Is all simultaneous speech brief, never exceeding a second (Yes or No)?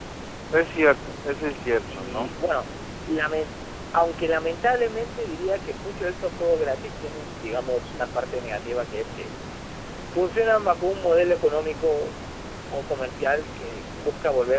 Yes